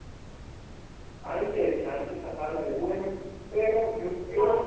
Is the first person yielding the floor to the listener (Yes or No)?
No